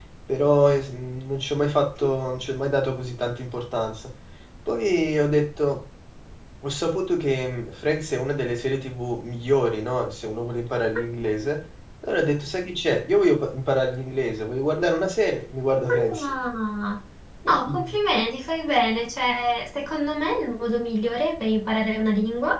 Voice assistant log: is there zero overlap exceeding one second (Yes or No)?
Yes